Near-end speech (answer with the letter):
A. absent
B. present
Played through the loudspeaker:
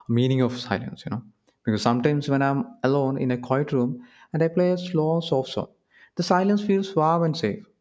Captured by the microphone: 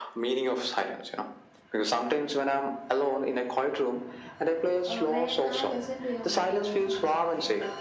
B